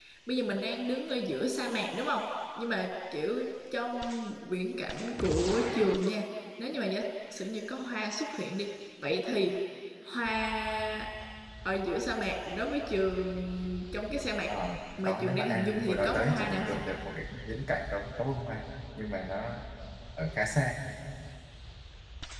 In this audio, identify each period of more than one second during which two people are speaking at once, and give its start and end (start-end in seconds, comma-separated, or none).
15.1-16.8